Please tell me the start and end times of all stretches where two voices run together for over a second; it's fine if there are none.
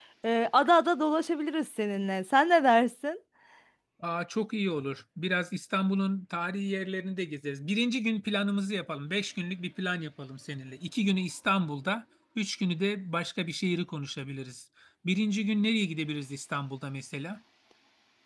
none

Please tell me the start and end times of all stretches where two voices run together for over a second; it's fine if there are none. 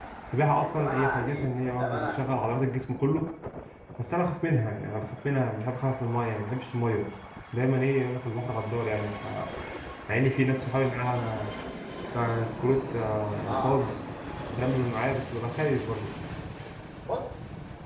0.6-2.2

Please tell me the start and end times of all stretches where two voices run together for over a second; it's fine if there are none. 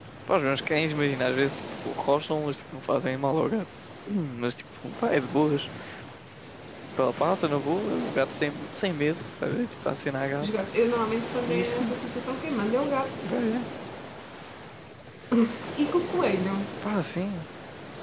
none

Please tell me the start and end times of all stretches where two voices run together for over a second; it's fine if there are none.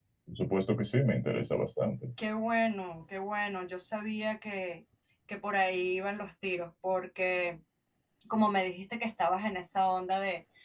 none

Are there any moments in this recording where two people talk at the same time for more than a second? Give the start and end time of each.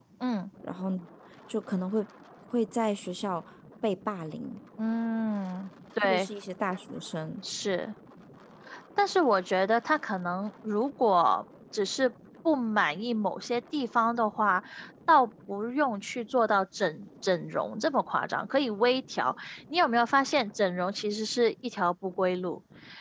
none

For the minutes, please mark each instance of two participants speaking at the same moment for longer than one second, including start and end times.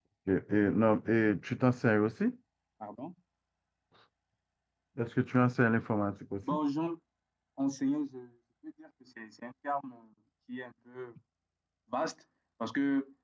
none

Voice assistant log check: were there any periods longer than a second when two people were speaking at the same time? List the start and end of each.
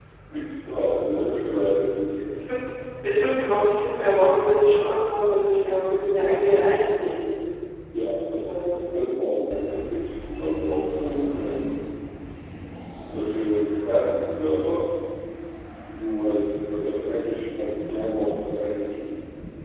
none

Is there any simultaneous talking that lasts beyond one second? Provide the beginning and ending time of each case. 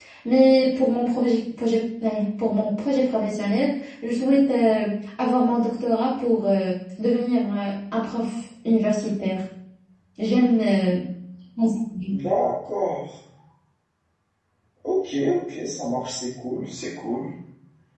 none

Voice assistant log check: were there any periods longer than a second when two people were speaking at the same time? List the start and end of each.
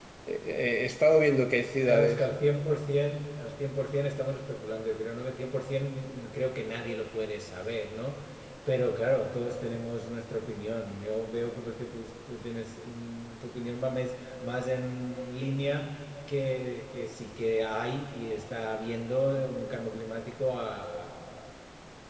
none

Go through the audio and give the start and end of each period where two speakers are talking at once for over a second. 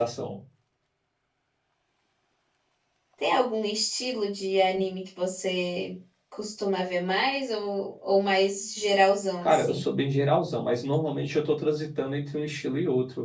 none

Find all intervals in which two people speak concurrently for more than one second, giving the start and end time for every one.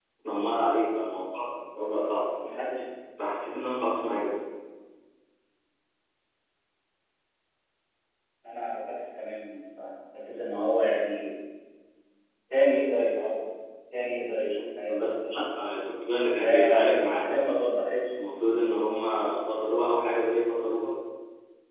16.2-17.5

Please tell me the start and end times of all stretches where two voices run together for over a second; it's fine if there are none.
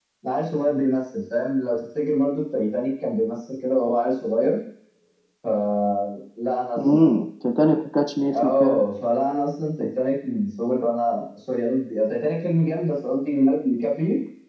none

